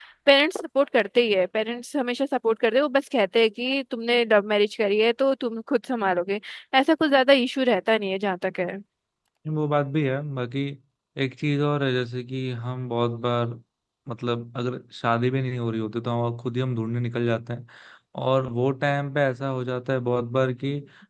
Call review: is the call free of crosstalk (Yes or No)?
Yes